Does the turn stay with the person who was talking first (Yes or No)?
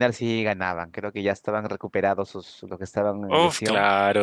No